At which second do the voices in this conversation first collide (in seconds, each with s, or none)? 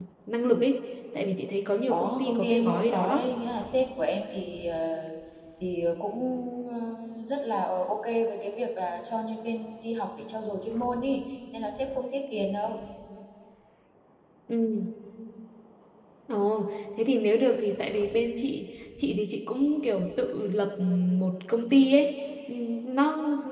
1.9 s